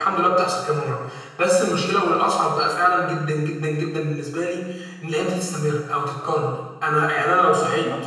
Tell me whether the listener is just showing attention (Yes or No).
Yes